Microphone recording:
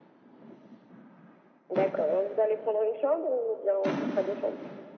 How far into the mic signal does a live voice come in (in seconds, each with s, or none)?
none